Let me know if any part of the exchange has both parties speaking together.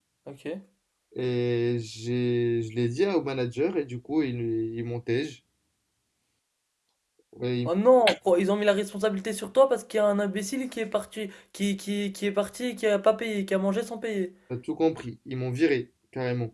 No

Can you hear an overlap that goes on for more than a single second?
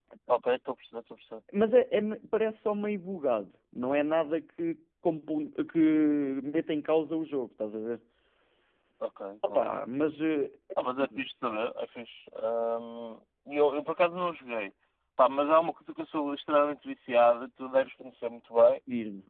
No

